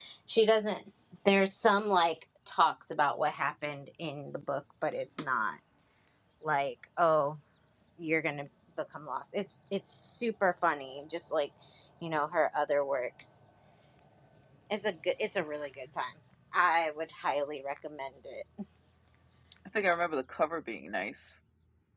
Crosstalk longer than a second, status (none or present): none